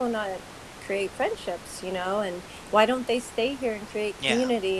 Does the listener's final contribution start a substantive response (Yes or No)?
No